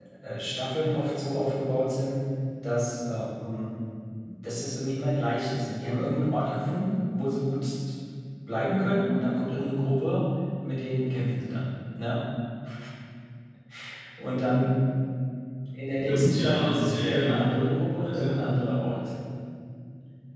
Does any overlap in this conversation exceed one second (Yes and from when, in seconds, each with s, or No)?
Yes, from 16.1 s